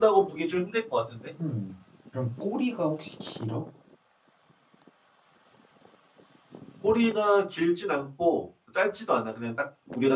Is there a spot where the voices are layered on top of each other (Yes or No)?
No